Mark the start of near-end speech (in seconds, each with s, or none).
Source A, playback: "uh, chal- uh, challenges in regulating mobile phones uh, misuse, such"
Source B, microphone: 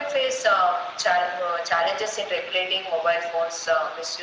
none